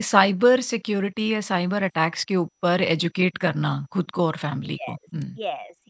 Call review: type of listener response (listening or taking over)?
taking over